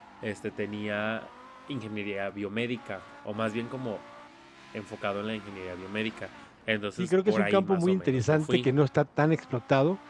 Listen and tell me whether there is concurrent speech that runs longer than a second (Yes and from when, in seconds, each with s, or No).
Yes, from 7.0 s